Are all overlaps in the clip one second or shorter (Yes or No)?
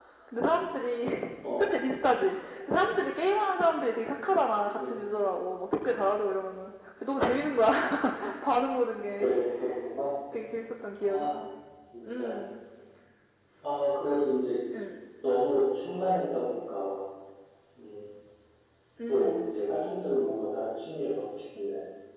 Yes